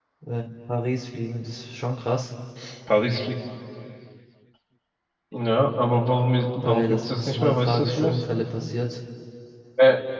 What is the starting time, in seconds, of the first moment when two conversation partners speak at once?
6.6 s

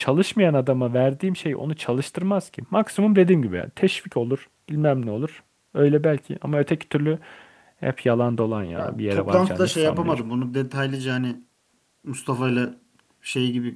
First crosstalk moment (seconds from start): 8.8 s

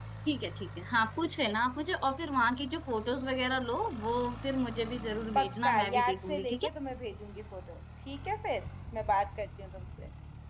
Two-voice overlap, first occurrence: 5.4 s

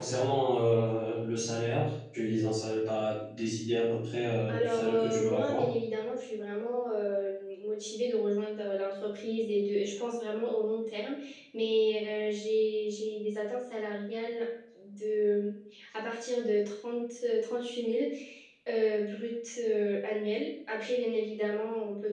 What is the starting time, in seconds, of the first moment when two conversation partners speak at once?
4.5 s

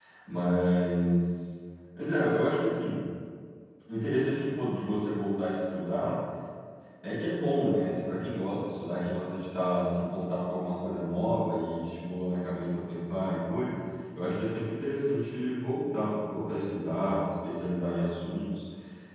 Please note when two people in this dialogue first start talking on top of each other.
none

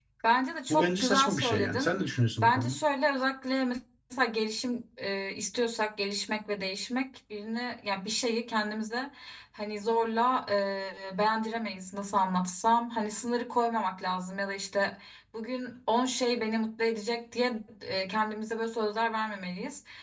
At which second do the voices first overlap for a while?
0.7 s

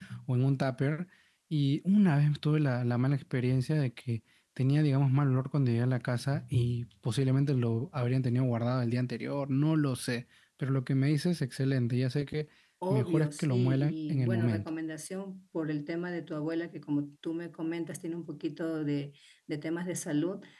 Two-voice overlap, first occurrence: 12.9 s

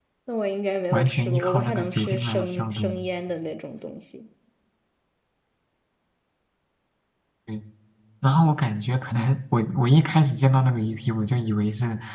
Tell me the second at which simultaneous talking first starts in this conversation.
0.9 s

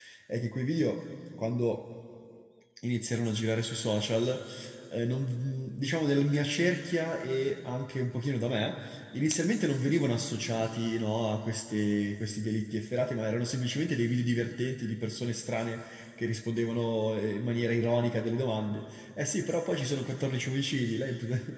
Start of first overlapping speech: none

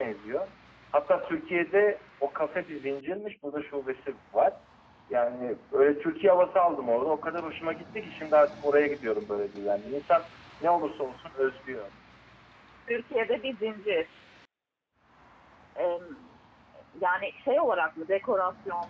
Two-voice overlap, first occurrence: none

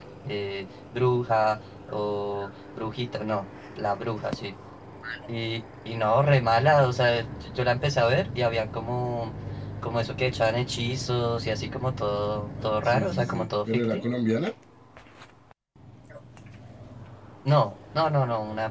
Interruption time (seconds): 12.8 s

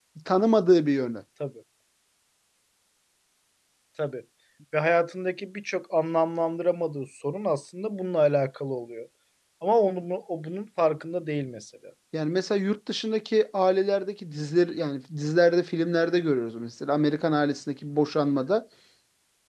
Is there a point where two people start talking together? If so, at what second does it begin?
none

